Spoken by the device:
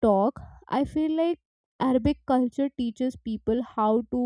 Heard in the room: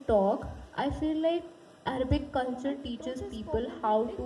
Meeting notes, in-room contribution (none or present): present